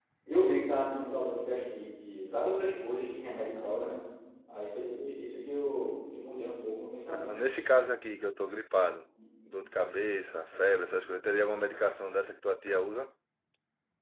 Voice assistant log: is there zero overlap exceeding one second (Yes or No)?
Yes